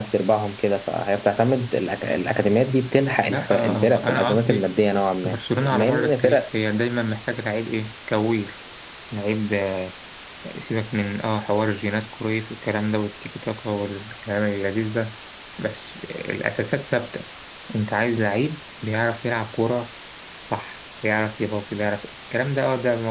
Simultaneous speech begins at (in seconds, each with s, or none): 3.2 s